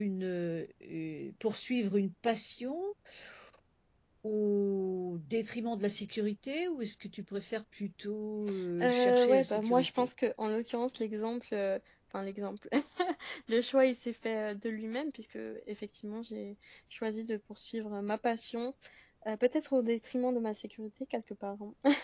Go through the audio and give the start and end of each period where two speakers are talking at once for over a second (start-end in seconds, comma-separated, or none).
8.8-10.1